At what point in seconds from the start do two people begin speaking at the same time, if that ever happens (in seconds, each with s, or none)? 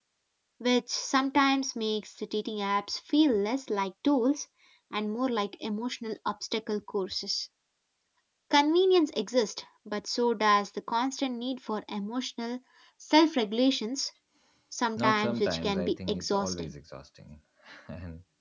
15.0 s